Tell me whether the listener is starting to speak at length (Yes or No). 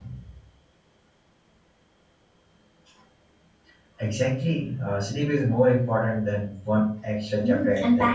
Yes